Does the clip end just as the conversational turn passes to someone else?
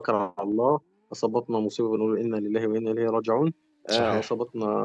No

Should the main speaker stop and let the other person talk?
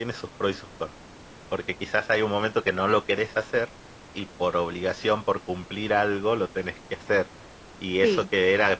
No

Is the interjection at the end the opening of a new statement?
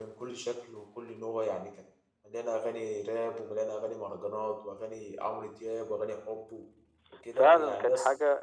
Yes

